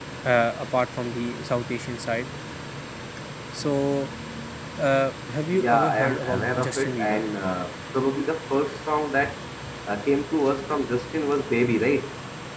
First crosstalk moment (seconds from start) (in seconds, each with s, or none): 5.6 s